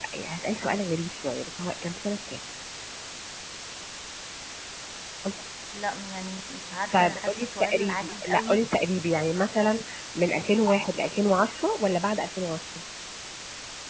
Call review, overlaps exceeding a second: present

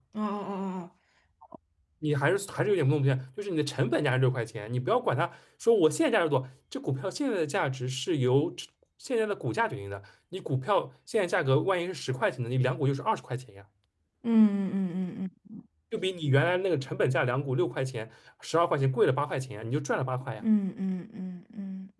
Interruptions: none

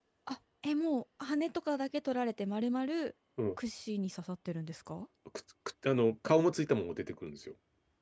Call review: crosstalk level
none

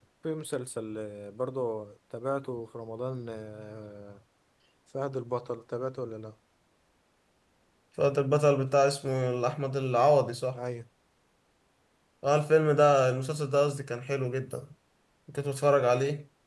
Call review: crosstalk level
none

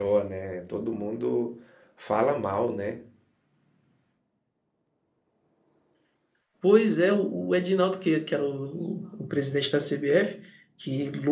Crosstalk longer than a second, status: none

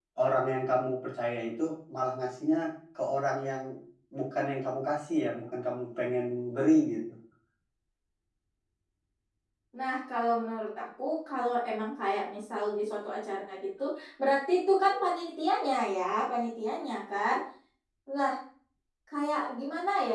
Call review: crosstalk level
none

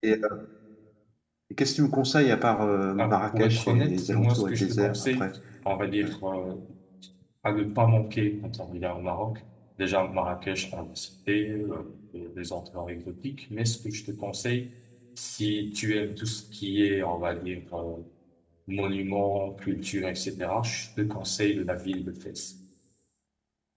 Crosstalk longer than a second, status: present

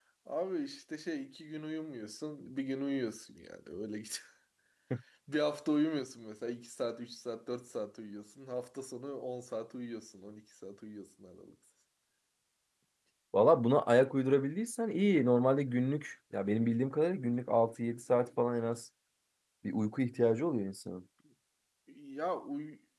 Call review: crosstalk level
none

